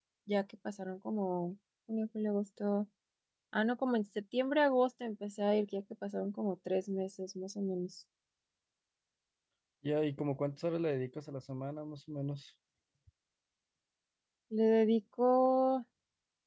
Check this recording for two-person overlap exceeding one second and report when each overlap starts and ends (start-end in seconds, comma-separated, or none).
none